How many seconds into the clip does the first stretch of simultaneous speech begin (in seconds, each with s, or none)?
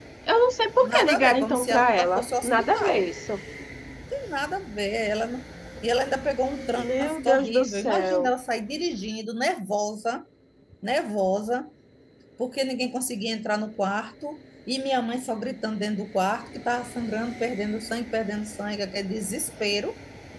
0.8 s